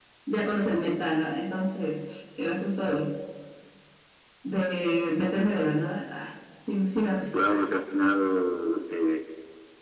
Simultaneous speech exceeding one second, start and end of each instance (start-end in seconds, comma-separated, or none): none